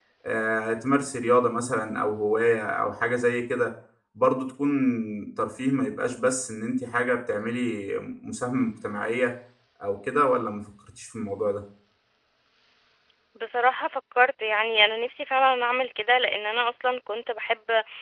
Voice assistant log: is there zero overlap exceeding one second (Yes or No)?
Yes